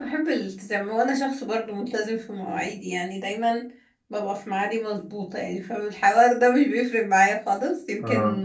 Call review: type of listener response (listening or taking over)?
listening